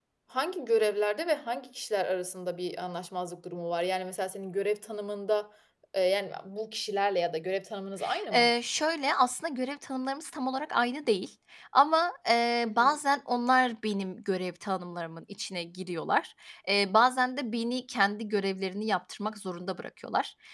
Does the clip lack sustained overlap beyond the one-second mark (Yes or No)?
Yes